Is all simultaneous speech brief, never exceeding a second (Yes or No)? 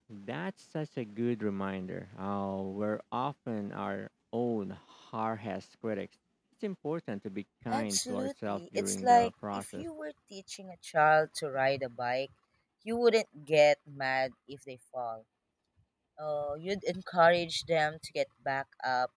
No